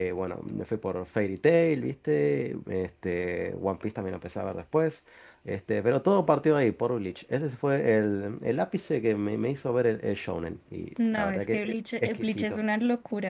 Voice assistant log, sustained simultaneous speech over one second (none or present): present